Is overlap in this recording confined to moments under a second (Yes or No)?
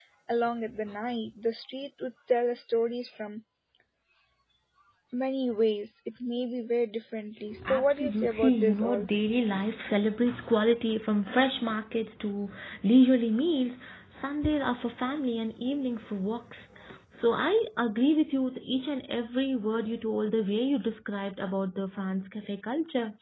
No